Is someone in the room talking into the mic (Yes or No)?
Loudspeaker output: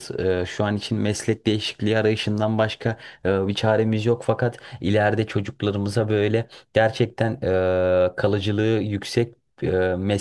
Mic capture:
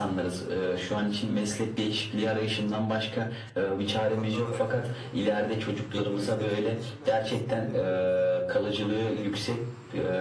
Yes